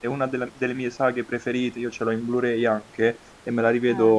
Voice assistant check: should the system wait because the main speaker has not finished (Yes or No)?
Yes